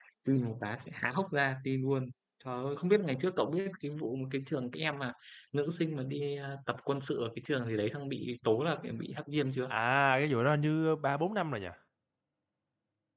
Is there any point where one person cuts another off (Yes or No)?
No